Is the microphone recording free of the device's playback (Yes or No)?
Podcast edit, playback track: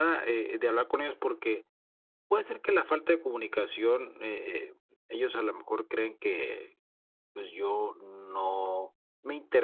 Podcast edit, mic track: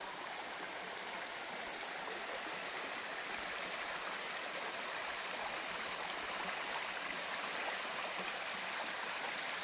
Yes